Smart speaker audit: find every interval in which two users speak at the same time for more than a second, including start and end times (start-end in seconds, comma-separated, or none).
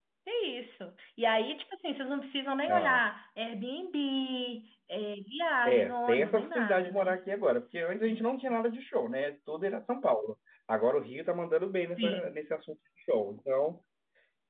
5.7-7.2